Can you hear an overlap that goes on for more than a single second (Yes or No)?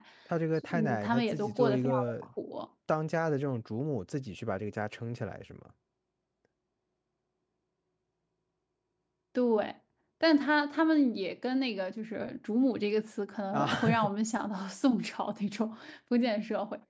Yes